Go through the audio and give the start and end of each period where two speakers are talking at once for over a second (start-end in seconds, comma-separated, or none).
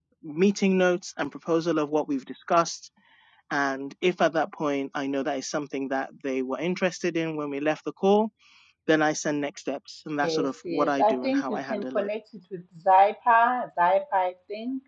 10.2-12.1